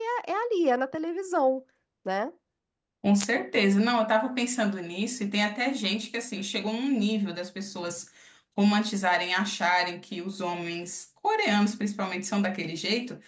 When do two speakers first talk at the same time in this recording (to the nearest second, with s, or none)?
none